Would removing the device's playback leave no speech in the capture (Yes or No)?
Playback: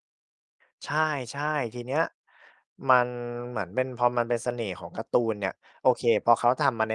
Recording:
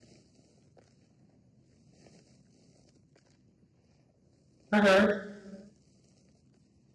No